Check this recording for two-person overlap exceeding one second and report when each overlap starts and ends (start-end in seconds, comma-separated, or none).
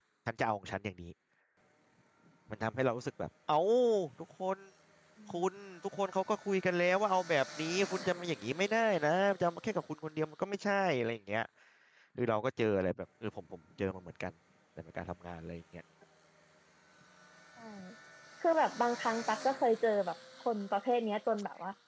none